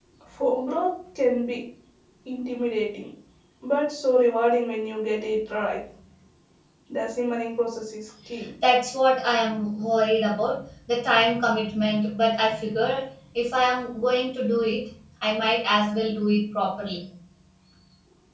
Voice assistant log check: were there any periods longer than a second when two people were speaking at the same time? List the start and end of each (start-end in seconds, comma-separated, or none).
none